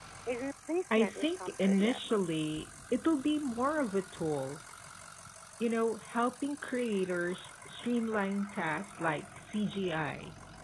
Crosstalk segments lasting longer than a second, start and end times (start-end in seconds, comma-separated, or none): 0.9-2.1